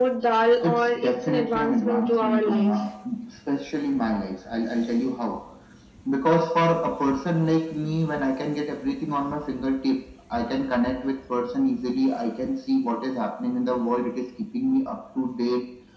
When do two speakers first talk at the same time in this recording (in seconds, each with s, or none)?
0.6 s